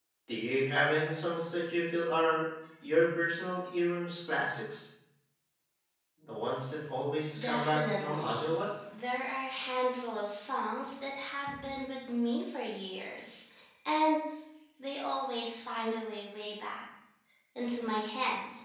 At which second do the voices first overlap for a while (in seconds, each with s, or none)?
7.3 s